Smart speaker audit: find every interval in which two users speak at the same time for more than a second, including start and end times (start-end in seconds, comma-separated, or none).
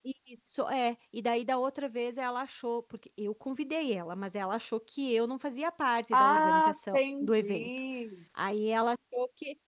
6.1-7.7